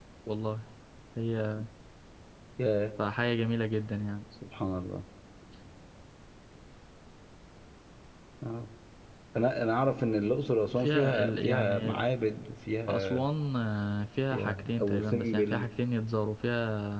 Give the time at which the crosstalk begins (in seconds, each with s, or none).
10.8 s